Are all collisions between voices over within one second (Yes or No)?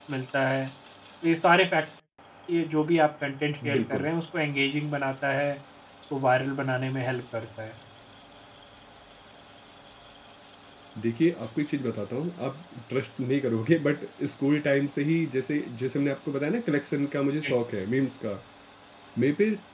Yes